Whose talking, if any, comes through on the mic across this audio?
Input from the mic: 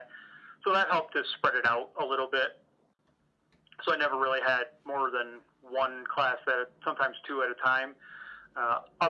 echo only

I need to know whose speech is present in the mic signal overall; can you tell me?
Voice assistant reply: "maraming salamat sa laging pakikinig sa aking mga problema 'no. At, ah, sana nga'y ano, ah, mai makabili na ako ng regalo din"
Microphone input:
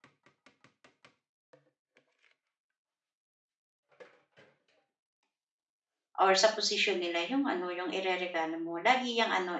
user only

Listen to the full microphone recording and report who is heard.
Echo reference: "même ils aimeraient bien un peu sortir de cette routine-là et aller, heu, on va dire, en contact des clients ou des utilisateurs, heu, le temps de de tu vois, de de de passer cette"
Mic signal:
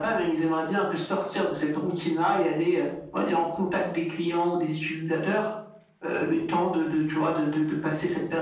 echo only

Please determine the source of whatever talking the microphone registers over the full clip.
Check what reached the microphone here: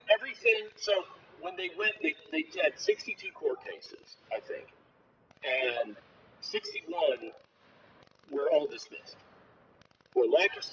echo only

